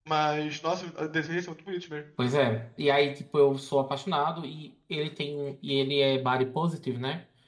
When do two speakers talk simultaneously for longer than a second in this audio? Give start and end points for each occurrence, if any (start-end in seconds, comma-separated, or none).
none